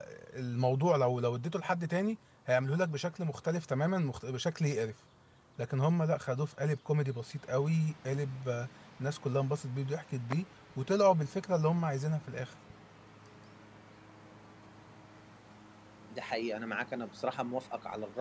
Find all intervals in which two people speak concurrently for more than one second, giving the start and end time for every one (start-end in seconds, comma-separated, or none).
none